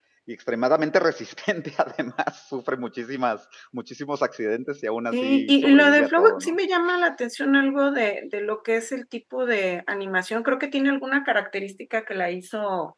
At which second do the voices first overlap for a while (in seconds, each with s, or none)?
5.1 s